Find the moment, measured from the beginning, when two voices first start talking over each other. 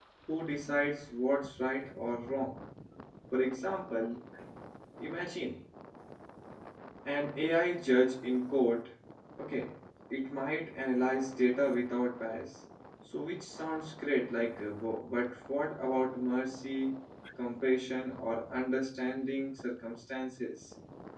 none

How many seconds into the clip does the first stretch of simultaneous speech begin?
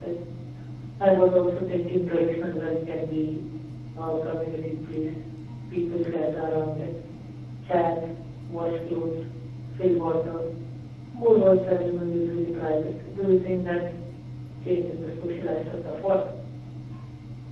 none

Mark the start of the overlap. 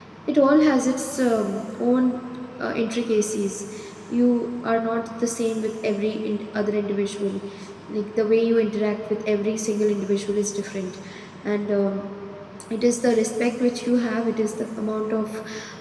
none

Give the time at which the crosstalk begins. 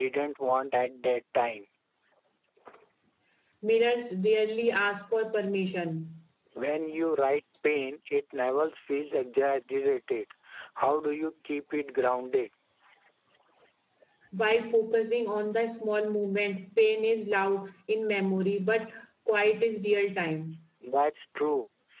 none

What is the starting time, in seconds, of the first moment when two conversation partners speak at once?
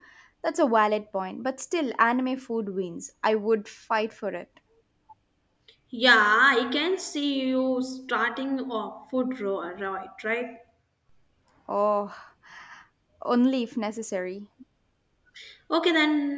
none

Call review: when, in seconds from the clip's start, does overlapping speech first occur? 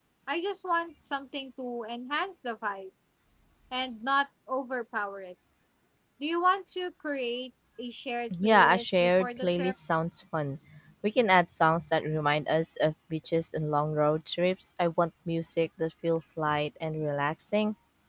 8.3 s

